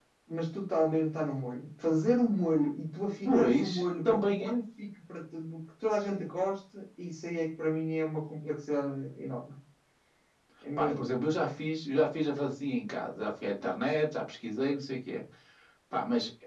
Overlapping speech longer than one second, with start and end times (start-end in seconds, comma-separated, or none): 3.2-4.5